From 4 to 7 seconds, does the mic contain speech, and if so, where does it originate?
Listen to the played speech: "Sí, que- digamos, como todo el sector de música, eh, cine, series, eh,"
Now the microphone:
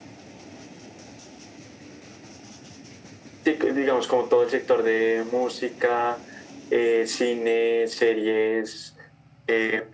echo only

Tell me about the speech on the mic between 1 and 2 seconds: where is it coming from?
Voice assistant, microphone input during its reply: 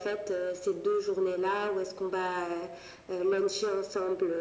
echo only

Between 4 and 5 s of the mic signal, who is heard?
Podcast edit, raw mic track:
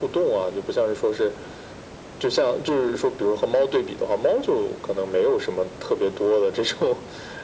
echo only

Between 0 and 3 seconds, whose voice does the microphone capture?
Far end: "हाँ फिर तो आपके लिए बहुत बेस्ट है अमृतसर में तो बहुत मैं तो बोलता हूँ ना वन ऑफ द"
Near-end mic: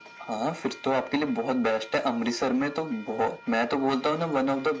echo only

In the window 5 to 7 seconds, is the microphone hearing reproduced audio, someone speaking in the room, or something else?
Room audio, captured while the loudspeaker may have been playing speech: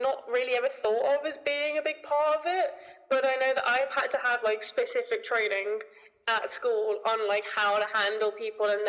echo only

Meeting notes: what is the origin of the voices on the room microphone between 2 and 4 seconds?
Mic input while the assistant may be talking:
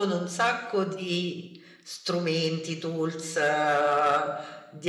echo only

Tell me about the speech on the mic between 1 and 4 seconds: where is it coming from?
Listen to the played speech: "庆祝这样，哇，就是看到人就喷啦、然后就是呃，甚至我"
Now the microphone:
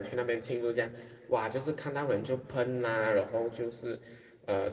echo only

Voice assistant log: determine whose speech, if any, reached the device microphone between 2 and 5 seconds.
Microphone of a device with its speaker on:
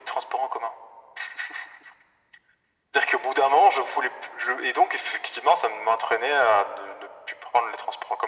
echo only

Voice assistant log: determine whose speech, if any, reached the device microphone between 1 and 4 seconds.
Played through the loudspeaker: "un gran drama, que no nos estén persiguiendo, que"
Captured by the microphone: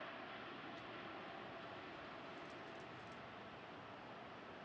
neither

